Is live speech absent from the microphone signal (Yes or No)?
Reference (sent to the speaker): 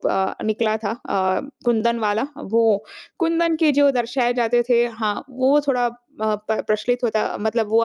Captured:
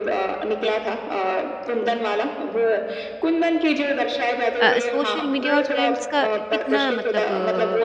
No